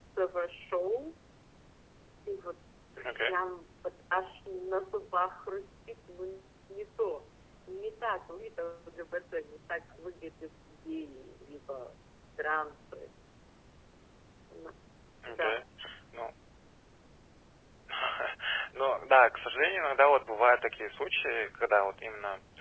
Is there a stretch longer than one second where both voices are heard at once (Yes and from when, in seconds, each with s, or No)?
No